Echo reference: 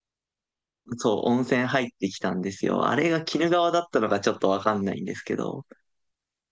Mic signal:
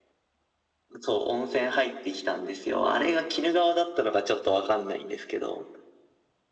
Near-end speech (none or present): none